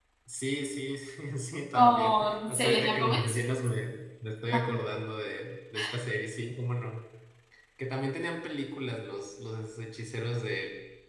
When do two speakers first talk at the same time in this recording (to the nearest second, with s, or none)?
2 s